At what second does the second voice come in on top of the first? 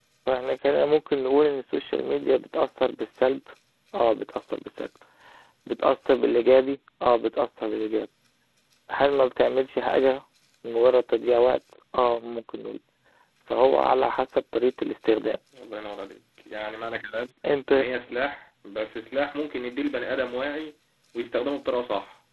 none

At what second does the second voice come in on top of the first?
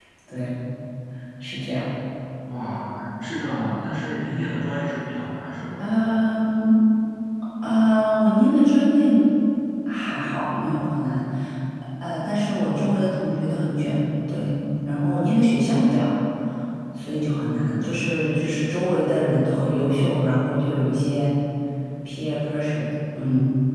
none

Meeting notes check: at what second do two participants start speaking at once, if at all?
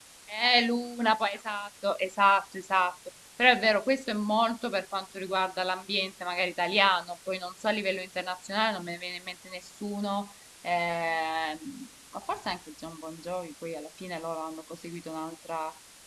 none

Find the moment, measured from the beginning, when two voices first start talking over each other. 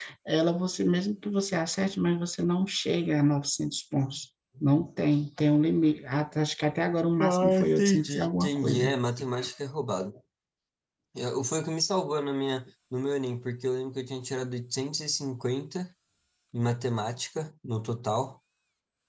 7.2 s

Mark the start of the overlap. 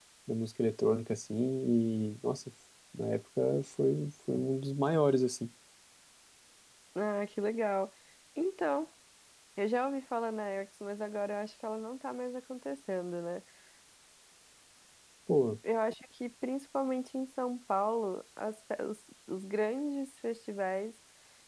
none

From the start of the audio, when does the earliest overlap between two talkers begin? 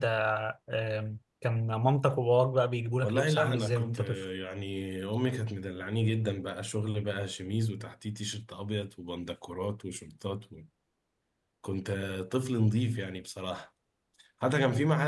3.0 s

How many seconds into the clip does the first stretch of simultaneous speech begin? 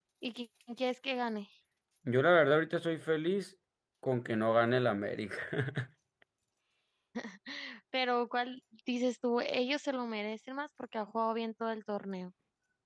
none

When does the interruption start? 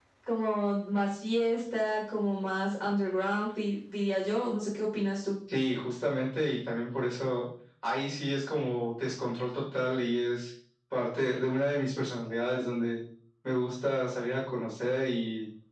none

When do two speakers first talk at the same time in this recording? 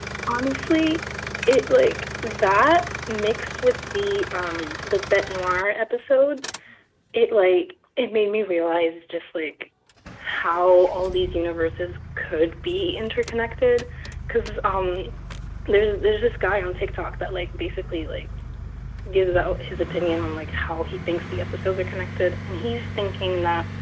none

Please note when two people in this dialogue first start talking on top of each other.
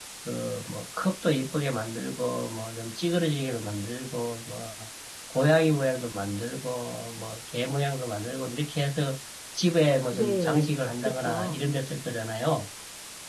10.1 s

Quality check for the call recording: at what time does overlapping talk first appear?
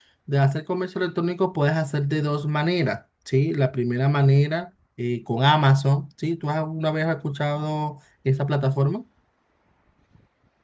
none

